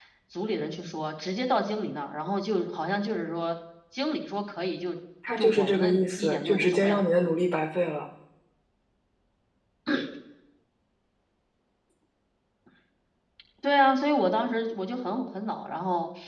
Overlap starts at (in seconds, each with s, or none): 5.4 s